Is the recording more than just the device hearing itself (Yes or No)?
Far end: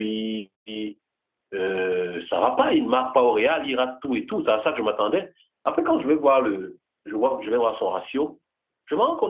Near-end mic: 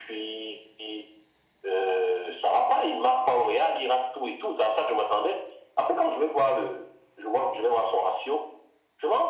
No